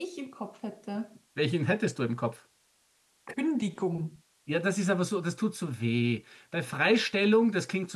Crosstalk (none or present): none